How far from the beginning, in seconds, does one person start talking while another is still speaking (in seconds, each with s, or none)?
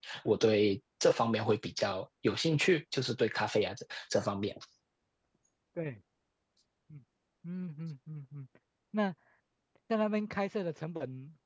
none